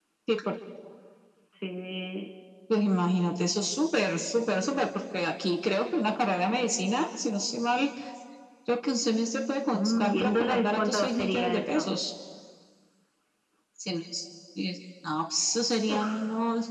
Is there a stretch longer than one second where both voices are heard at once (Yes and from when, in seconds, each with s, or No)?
Yes, from 9.7 s